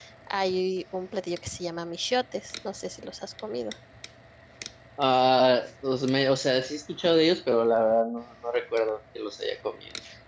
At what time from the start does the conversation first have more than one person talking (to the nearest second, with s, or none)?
none